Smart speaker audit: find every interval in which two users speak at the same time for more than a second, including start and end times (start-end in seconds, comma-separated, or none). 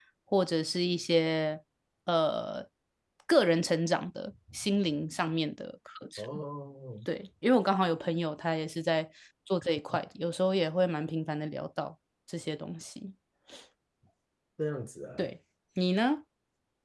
none